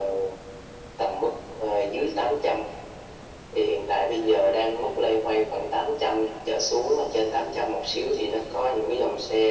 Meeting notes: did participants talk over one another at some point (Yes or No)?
No